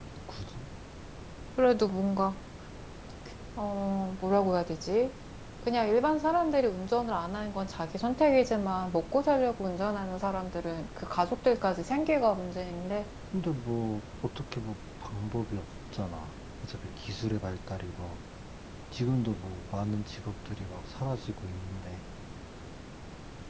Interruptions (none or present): none